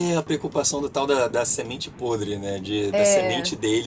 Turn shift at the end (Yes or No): No